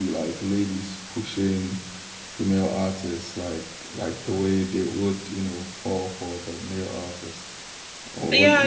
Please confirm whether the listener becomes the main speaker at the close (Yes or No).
Yes